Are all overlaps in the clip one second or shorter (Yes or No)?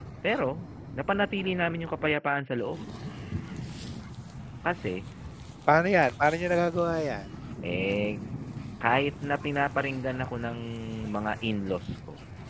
Yes